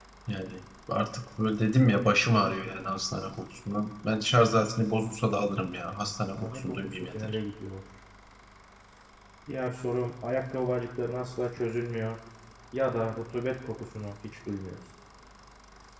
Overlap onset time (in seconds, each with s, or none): 6.0 s